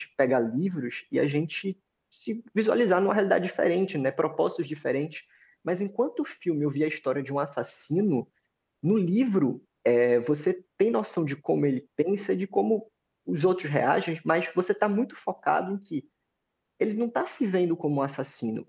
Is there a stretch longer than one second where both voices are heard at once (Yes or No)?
No